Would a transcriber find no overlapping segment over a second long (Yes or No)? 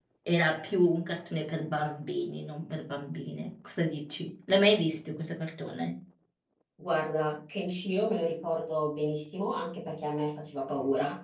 Yes